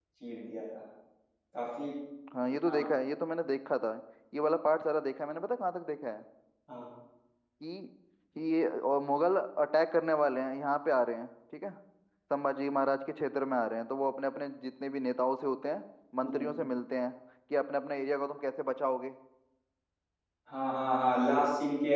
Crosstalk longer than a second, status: none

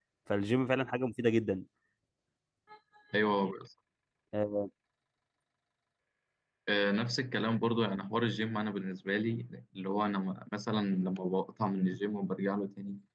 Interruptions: none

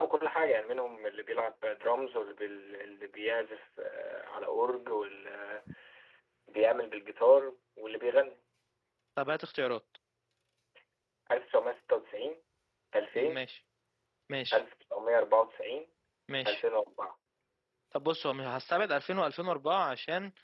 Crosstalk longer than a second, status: none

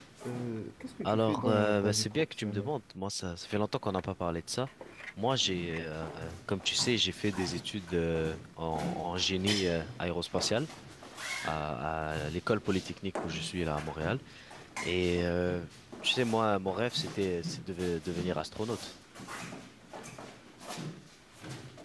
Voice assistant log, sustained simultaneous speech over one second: present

